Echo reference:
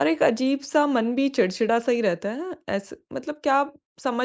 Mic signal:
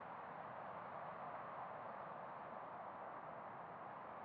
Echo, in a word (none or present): none